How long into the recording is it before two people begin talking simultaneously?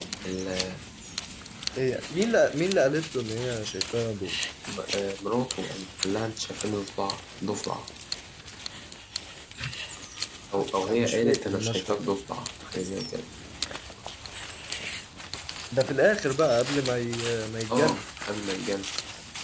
10.9 s

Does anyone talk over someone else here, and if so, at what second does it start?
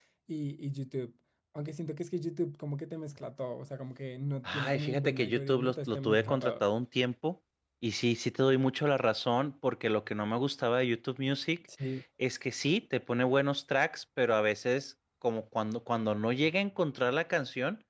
4.4 s

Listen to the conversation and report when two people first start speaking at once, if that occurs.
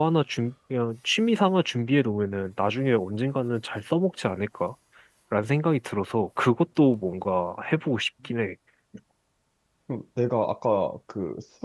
none

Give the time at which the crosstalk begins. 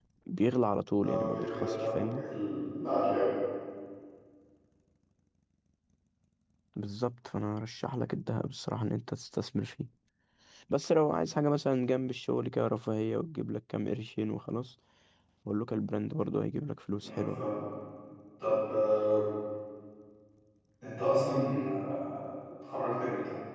0.9 s

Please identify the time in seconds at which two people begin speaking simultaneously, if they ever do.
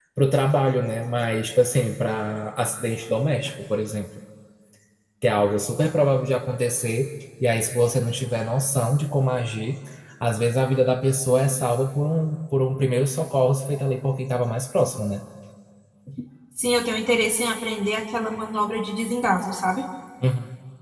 none

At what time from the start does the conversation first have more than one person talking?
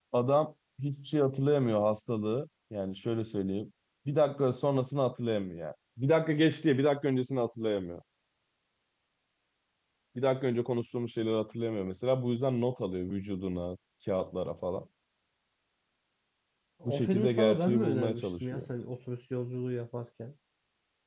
16.8 s

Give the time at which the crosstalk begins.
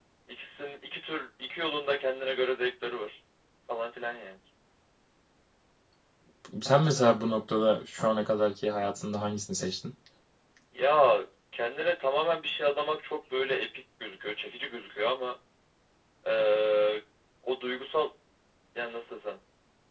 none

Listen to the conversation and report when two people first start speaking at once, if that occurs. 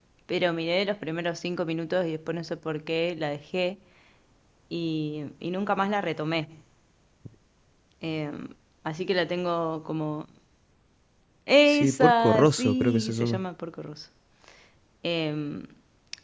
11.7 s

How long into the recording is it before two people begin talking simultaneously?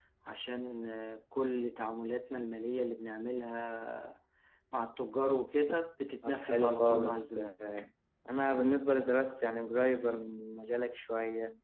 6.2 s

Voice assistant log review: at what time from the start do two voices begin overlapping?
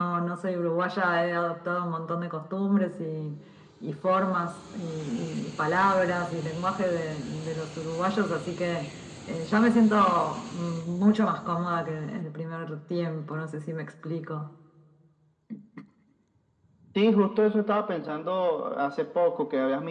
none

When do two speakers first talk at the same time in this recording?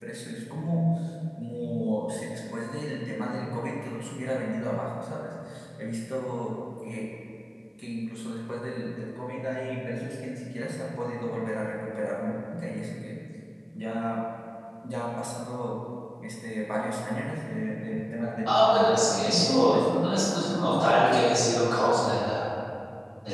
18.5 s

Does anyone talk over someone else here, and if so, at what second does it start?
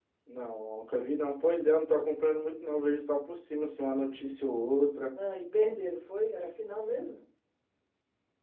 none

